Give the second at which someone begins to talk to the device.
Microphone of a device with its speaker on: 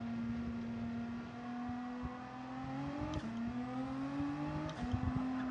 none

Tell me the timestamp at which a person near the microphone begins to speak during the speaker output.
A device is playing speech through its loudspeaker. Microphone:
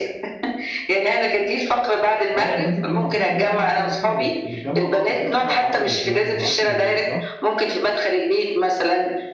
2.3 s

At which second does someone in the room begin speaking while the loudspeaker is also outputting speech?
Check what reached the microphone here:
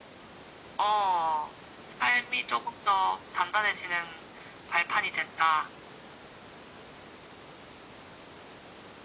none

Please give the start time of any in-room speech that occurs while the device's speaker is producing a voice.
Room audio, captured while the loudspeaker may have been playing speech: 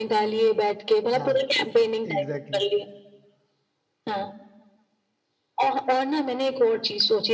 1.2 s

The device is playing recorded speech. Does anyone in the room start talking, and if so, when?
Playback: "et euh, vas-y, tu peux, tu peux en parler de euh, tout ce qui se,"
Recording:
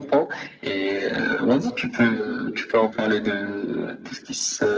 2.1 s

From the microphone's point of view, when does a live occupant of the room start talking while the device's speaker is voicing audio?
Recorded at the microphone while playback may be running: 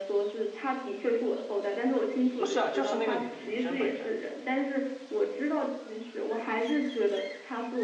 2.3 s

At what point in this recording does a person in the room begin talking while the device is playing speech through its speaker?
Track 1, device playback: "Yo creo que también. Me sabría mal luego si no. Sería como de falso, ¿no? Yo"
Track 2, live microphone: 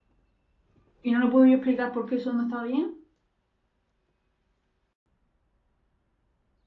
1.0 s

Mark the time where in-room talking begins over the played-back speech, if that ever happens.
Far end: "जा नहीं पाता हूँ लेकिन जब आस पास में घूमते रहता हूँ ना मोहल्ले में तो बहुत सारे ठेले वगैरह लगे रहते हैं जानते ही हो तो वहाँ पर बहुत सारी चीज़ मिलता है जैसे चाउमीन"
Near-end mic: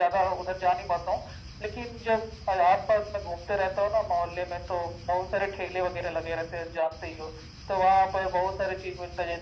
none

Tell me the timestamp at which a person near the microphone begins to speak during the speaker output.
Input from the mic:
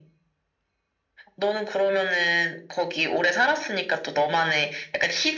none

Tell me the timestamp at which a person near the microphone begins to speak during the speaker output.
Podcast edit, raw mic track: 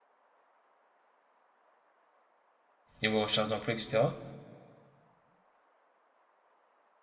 3.0 s

